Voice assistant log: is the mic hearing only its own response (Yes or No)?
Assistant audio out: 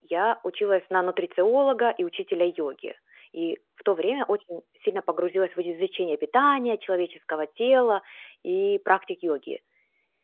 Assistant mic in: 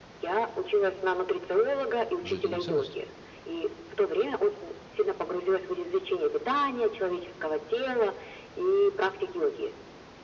No